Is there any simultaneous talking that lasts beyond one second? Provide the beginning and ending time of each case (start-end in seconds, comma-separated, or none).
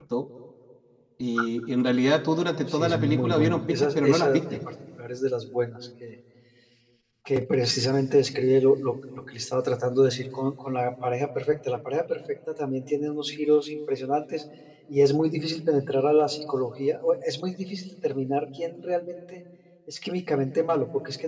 2.7-4.6